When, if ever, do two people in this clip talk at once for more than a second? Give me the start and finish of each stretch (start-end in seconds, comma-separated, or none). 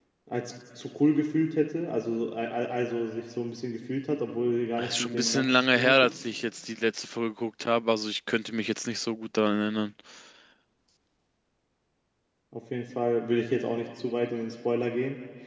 4.8-6.1